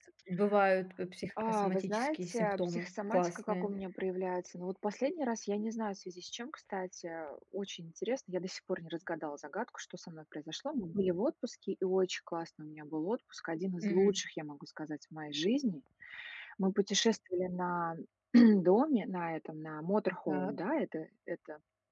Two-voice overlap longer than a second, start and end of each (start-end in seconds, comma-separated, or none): 1.5-3.7